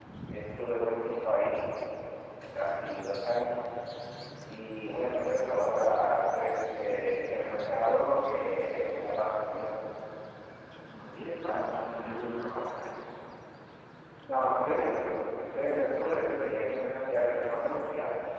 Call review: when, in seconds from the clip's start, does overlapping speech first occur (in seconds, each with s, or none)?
none